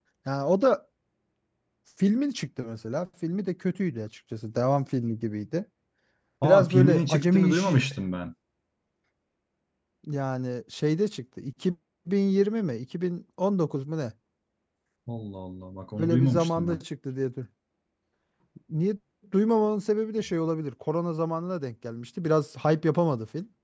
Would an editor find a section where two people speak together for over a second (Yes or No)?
Yes